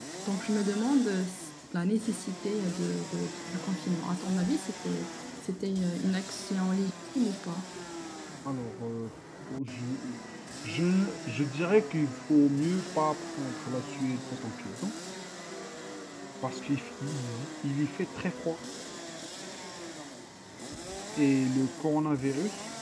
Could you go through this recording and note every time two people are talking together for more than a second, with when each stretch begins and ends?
none

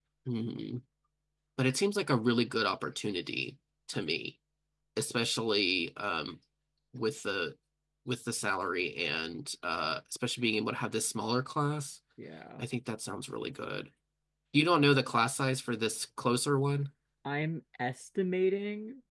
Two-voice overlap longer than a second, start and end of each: none

